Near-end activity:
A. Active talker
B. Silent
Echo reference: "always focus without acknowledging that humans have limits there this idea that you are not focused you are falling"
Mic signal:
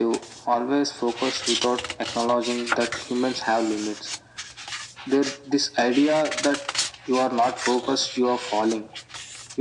B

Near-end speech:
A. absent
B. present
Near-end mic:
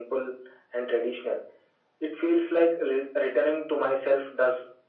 A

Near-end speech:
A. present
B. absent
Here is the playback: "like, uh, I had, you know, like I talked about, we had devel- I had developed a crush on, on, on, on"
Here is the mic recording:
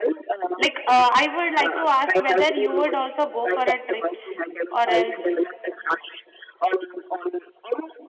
A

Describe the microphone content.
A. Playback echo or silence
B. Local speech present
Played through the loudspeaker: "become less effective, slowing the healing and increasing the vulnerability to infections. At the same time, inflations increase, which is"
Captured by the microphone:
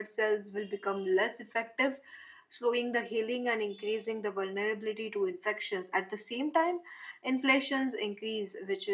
A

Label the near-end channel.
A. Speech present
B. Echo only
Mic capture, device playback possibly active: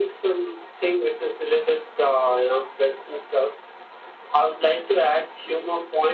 B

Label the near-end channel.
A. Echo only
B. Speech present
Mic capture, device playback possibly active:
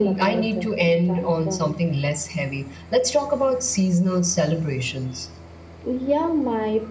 A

